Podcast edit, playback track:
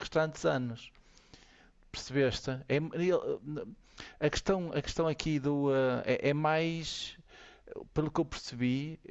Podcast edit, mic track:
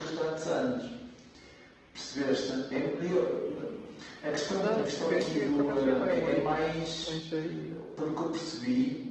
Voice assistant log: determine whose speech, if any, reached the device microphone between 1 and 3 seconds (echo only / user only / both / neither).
echo only